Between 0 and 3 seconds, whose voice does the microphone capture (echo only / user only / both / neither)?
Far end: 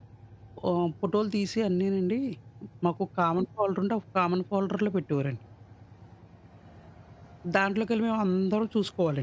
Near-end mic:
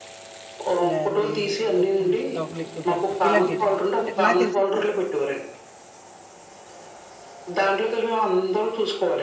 both